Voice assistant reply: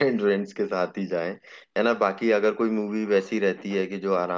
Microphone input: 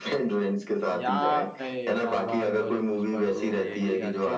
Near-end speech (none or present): present